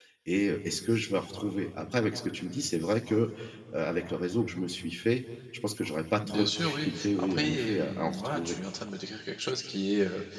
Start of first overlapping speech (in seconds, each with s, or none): 6.2 s